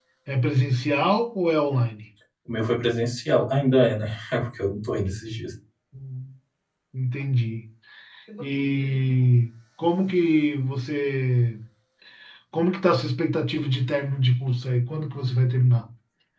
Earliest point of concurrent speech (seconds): none

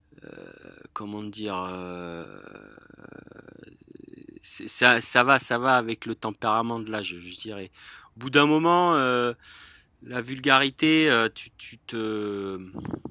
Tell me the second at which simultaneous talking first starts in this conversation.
none

